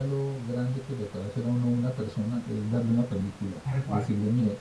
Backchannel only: Yes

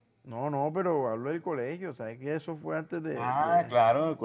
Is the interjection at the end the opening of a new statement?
Yes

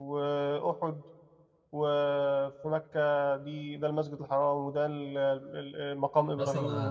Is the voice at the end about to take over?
Yes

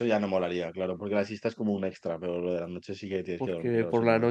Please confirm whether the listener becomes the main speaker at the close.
Yes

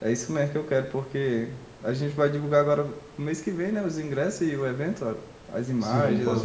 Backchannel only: No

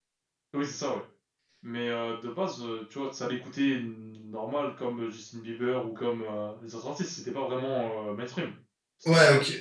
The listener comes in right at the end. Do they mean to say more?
Yes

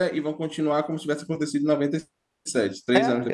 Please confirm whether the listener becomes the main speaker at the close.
Yes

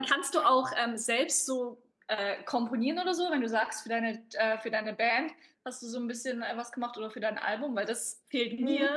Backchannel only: No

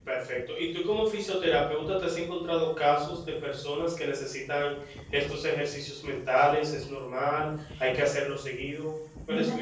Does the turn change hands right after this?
Yes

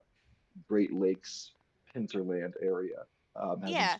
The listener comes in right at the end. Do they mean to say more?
No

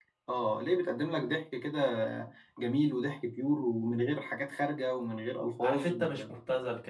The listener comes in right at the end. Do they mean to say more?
Yes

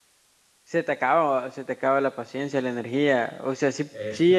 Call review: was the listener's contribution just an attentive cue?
Yes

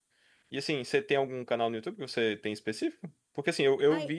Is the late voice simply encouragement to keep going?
Yes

